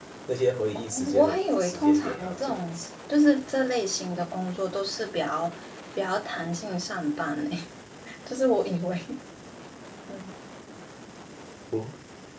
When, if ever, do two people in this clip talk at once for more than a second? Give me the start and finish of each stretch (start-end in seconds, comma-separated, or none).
0.8-2.8